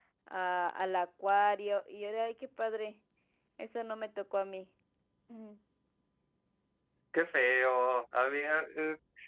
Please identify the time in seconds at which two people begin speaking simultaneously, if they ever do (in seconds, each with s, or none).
none